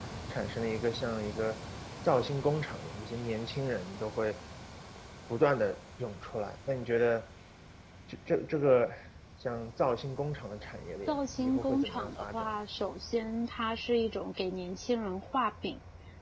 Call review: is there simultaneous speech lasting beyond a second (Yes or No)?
Yes